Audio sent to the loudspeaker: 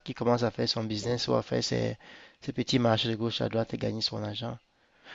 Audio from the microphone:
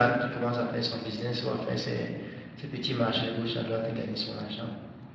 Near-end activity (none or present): none